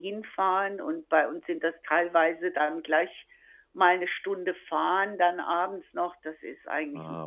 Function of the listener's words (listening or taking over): taking over